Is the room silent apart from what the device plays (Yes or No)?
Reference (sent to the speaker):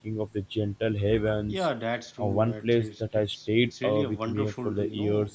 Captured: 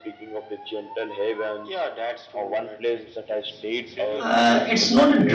No